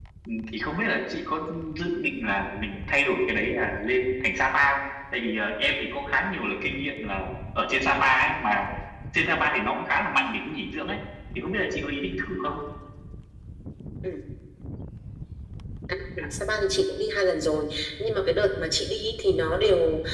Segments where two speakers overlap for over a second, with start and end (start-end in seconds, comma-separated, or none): none